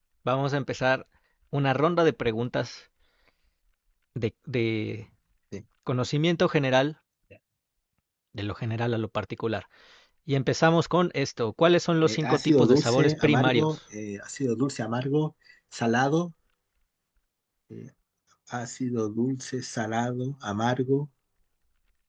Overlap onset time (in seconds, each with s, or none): 12.0 s